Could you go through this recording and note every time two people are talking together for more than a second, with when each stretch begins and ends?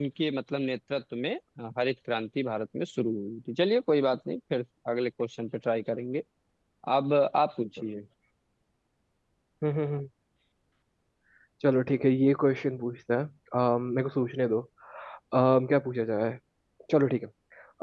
none

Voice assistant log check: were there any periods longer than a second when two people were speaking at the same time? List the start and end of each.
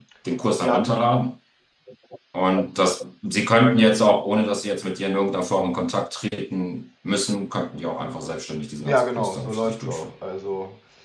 8.9-10.1

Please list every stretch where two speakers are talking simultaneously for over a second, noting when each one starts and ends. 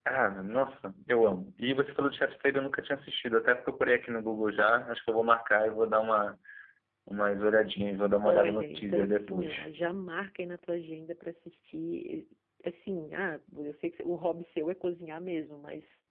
8.2-9.7

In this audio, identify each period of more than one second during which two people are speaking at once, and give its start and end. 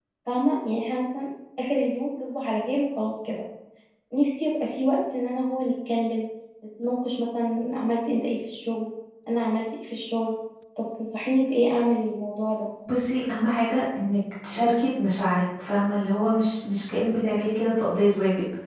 none

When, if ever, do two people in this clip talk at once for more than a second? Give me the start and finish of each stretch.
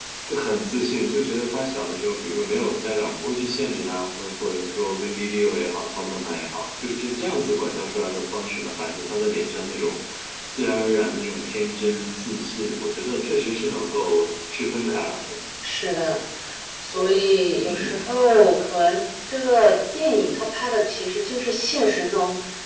none

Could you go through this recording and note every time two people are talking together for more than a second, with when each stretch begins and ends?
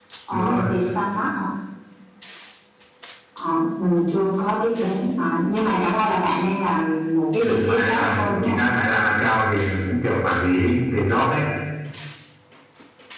7.4-8.6

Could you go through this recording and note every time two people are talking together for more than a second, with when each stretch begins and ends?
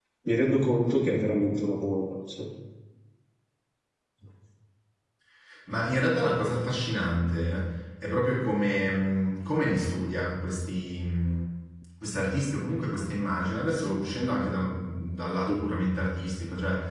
none

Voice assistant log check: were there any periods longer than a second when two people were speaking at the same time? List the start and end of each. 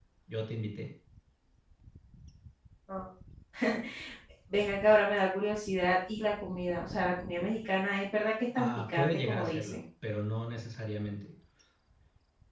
8.6-9.8

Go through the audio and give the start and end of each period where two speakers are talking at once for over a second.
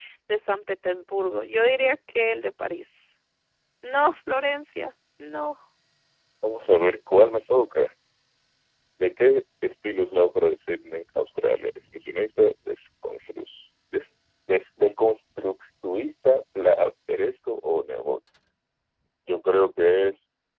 none

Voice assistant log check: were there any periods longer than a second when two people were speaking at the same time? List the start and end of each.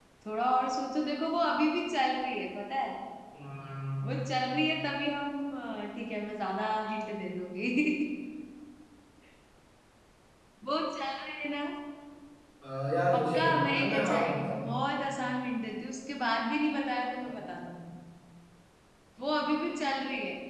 13.1-14.6

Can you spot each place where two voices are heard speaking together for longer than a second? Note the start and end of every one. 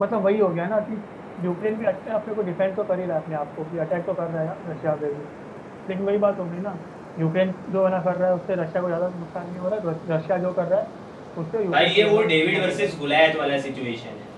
11.7-12.9

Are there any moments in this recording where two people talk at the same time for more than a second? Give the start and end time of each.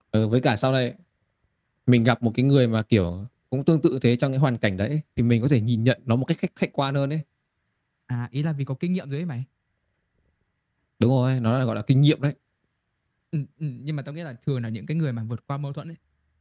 none

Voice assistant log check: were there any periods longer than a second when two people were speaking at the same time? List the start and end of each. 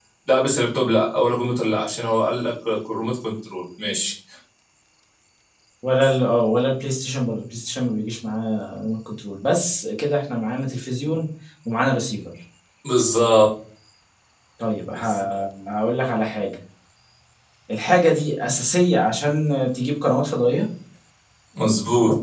none

